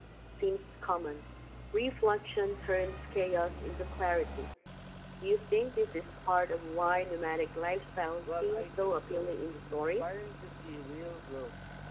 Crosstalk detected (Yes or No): Yes